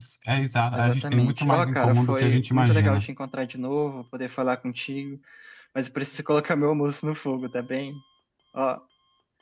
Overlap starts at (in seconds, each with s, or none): 0.8 s